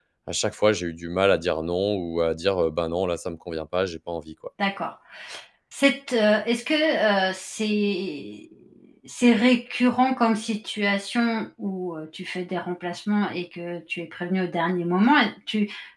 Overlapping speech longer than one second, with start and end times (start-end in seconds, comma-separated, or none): none